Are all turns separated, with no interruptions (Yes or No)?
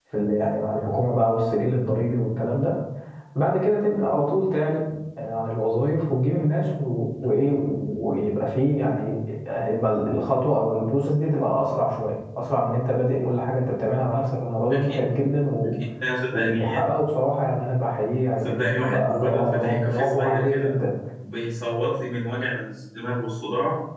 No